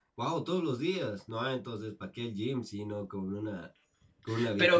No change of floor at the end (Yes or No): No